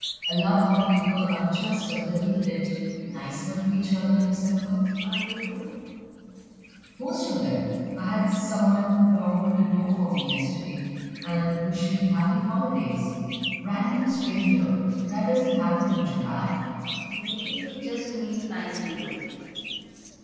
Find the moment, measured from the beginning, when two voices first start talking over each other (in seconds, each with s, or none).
none